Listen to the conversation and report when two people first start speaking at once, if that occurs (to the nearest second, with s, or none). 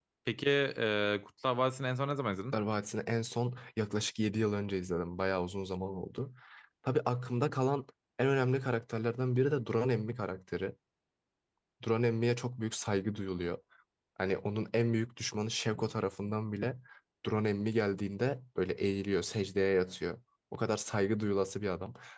none